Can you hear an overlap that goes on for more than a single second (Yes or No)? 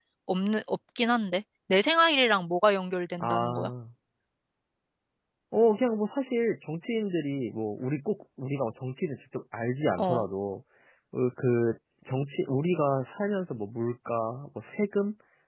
No